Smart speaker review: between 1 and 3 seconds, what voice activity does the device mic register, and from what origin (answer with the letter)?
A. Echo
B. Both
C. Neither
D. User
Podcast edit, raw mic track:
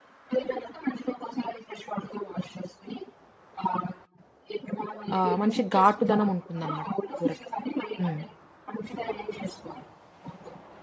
A